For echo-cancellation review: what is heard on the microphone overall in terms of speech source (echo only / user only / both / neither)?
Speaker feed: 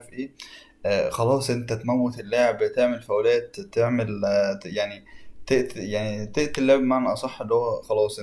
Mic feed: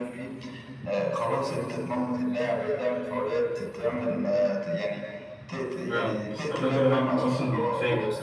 both